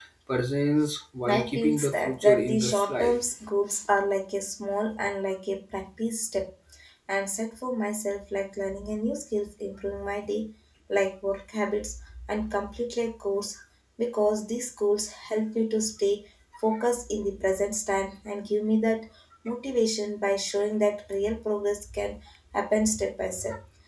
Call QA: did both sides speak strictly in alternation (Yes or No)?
No